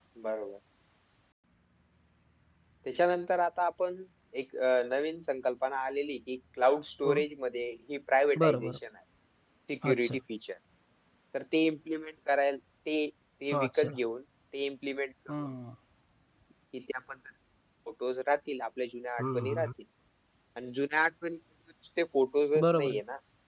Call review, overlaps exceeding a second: none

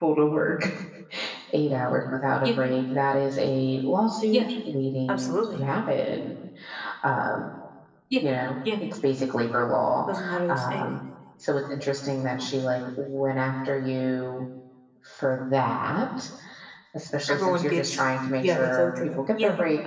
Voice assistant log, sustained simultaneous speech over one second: present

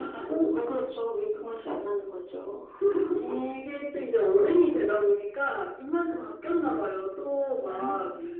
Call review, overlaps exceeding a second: none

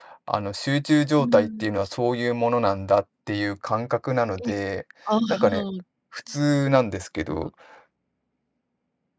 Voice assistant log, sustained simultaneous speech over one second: none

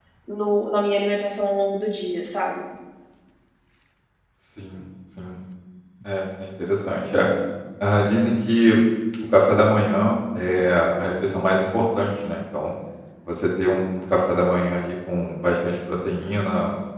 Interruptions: none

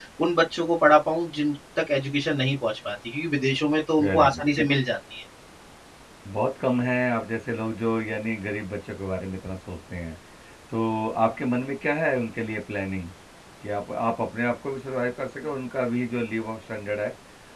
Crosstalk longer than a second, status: none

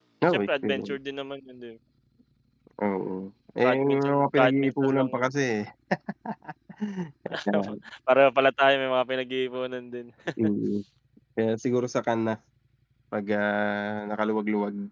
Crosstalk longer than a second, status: present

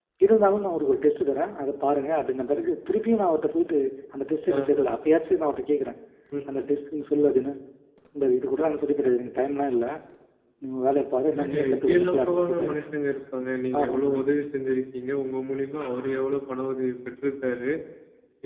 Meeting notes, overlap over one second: present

